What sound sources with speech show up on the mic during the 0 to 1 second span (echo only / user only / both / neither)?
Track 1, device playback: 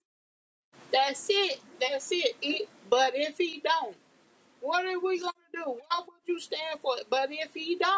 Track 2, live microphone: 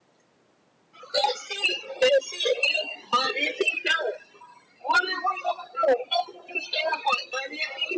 neither